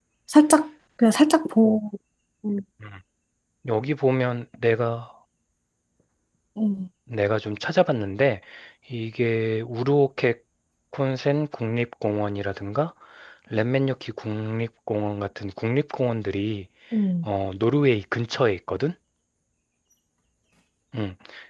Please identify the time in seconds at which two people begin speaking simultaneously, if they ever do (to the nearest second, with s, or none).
none